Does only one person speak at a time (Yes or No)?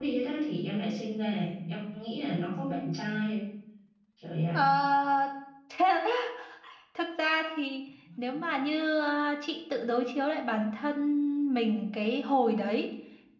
Yes